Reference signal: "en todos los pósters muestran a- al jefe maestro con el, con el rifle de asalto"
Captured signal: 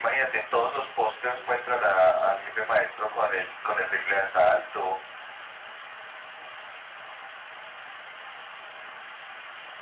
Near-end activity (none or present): none